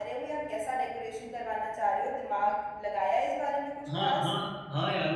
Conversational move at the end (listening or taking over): taking over